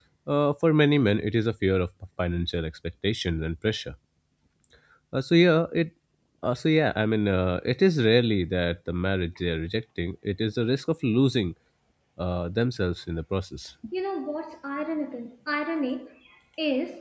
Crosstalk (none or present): none